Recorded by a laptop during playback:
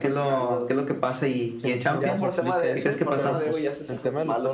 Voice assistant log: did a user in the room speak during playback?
Yes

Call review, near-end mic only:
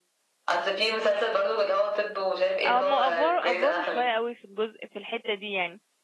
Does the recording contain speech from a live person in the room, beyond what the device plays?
Yes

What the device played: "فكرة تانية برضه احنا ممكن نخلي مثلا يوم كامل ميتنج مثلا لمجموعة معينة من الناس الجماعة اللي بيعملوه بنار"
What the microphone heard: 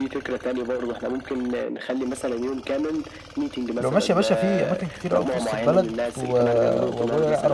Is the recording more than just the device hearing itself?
Yes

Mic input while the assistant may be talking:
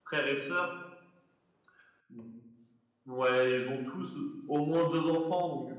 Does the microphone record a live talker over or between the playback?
Yes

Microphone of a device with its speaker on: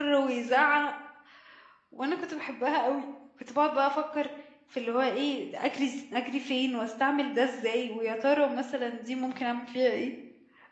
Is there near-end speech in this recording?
Yes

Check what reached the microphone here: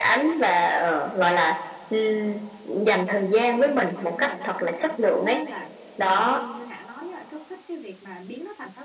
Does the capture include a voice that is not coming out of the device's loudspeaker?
Yes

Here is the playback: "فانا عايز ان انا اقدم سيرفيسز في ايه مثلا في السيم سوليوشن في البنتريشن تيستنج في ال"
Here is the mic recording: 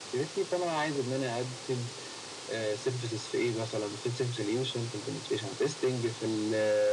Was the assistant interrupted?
No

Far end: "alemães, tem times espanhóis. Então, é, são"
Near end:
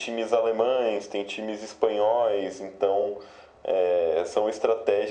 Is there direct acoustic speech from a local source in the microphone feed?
No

